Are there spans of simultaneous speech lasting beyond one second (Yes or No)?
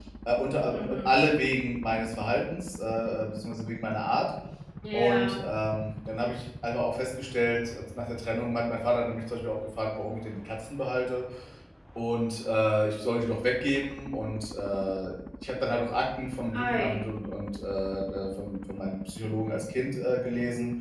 No